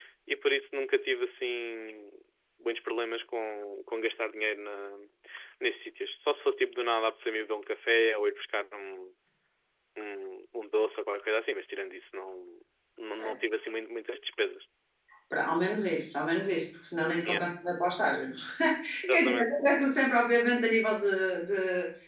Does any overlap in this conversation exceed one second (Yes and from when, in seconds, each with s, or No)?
No